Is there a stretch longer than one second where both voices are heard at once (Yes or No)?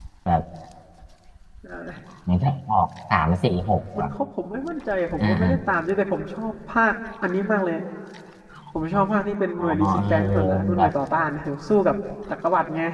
Yes